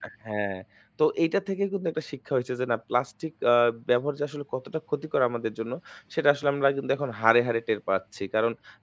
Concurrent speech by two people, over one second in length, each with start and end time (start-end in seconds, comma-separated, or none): none